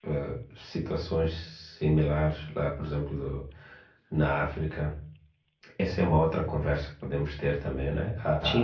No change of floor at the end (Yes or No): Yes